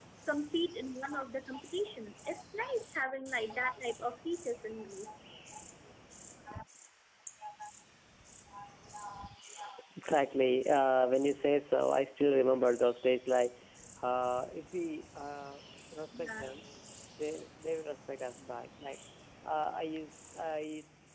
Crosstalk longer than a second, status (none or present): none